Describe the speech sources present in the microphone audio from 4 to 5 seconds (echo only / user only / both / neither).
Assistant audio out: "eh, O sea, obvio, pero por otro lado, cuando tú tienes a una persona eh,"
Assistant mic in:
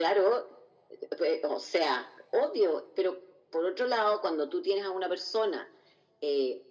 echo only